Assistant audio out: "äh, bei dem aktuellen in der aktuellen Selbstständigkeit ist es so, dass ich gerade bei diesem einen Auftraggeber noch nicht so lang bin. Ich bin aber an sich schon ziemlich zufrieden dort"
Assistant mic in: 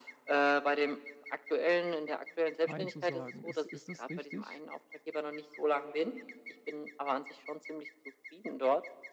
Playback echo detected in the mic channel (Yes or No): Yes